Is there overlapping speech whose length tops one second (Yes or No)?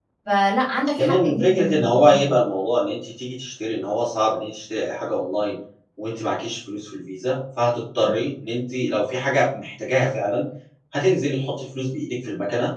Yes